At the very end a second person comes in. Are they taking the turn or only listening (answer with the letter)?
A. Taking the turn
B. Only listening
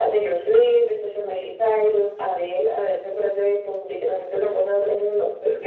A